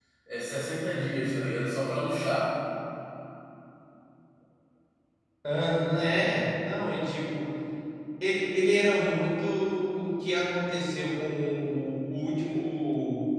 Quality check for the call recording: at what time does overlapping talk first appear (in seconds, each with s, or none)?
none